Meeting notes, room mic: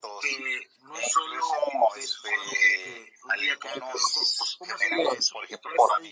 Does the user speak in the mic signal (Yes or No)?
No